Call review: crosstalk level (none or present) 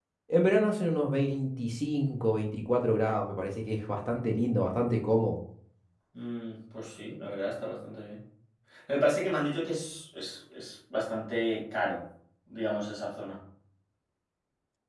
none